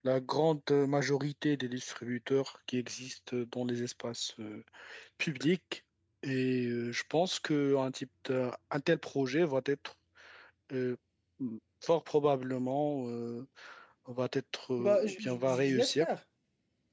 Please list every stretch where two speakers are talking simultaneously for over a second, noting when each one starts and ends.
14.8-16.1

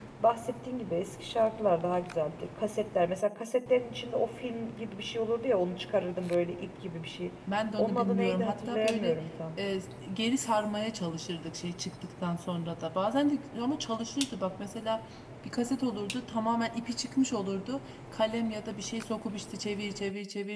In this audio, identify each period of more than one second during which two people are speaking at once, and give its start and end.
7.8-9.2

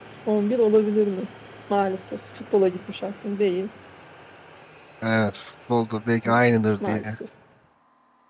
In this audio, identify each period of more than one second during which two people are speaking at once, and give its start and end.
none

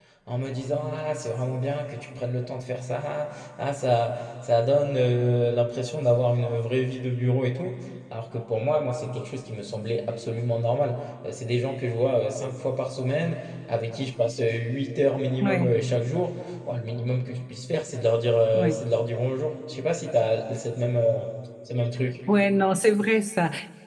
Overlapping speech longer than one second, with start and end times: none

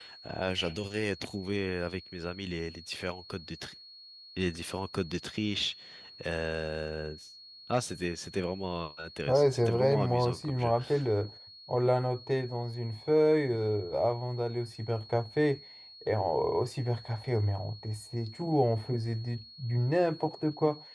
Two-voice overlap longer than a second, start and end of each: 9.3-10.7

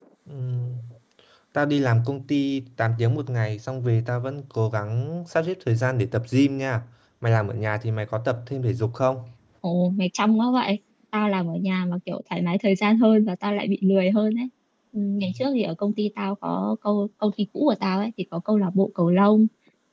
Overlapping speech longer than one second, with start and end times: none

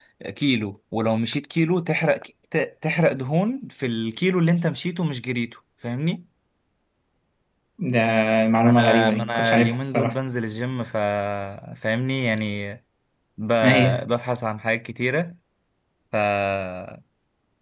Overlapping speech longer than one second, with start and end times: 8.6-10.2

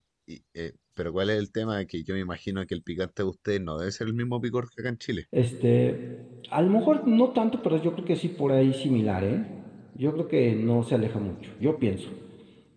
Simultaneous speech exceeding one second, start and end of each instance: none

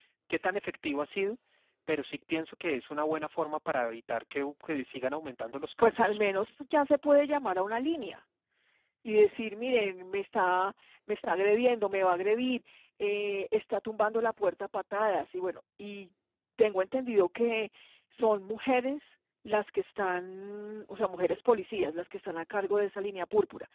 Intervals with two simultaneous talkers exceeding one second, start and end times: none

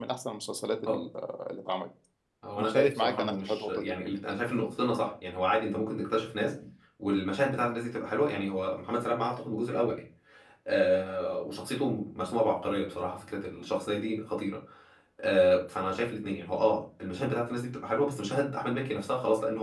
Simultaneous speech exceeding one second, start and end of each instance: 2.6-3.9

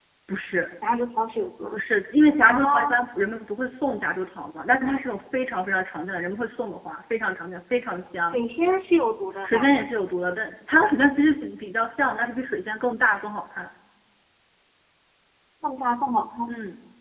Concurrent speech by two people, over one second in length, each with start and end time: none

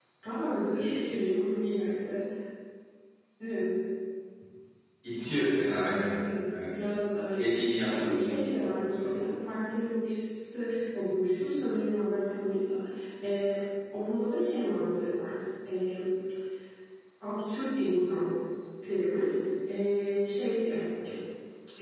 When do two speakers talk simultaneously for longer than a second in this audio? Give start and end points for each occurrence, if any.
7.9-9.2

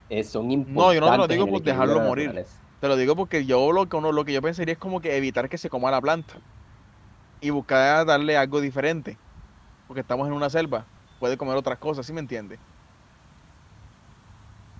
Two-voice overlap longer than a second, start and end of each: 0.8-2.4

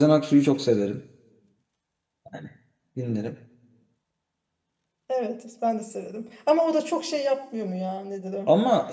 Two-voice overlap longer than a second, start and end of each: none

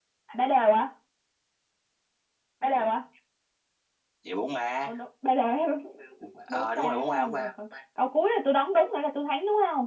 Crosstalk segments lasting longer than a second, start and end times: 6.5-7.7

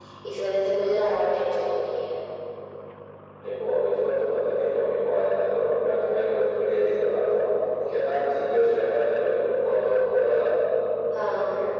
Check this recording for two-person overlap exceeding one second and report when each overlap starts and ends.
none

